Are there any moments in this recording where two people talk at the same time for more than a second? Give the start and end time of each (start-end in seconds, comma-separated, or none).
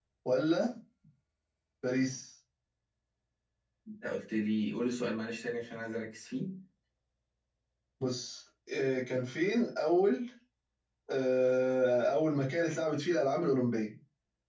none